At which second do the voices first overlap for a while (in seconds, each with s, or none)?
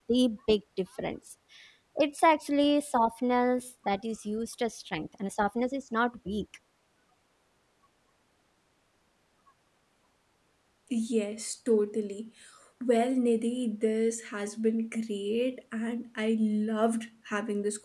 none